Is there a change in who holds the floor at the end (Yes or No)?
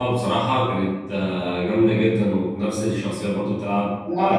Yes